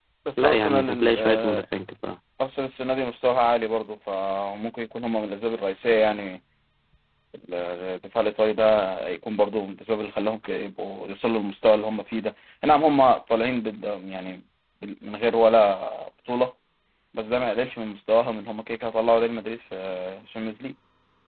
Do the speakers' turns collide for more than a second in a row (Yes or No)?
Yes